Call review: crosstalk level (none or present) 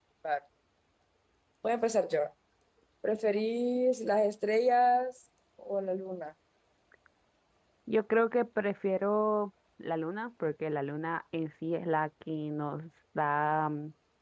none